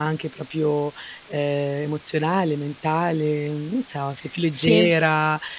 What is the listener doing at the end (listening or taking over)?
listening